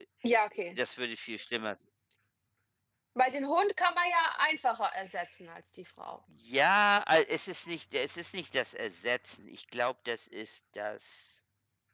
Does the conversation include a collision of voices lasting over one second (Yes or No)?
No